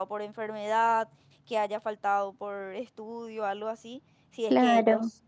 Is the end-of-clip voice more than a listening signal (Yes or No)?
No